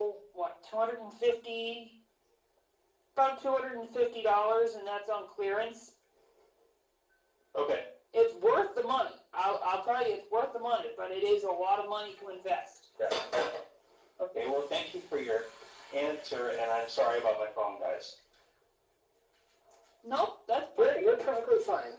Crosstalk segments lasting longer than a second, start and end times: none

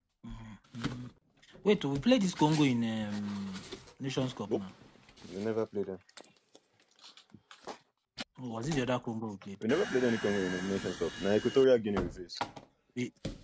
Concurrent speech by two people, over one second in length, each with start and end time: none

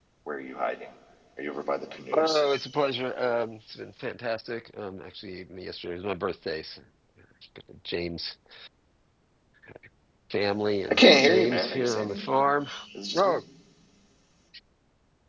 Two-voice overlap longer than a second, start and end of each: 10.9-12.5

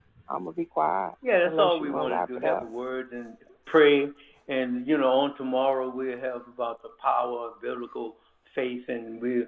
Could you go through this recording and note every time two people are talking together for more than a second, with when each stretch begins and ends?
1.4-2.7

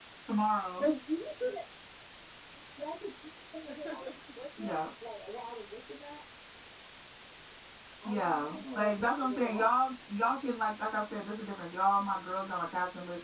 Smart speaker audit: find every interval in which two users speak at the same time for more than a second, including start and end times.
8.1-9.7

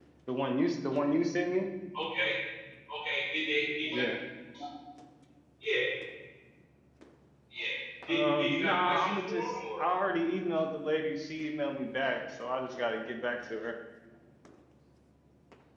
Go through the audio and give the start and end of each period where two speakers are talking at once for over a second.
8.1-9.8

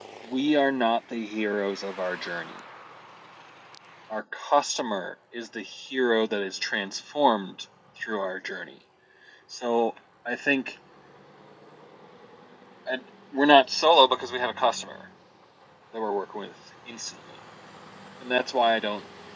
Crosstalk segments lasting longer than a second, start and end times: none

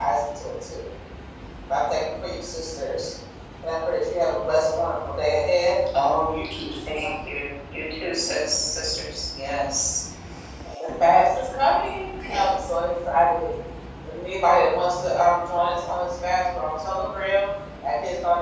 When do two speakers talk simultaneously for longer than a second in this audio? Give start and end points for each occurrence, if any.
none

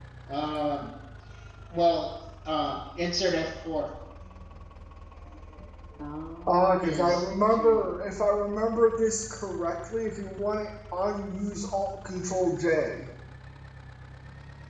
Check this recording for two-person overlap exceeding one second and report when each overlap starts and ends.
6.5-7.9

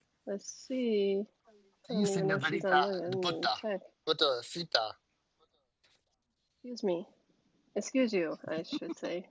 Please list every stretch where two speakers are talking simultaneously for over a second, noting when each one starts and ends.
1.9-3.6

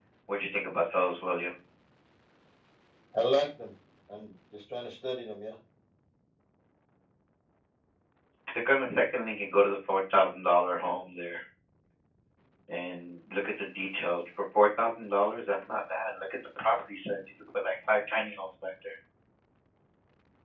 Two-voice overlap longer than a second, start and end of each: none

